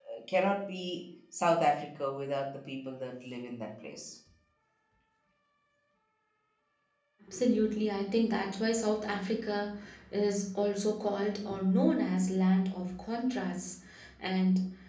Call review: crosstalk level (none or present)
none